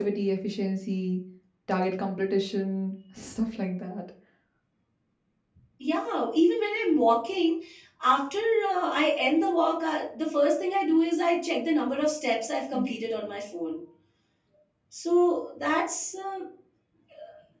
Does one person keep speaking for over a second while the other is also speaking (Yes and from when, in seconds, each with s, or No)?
No